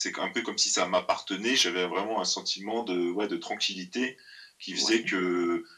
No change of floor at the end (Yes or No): Yes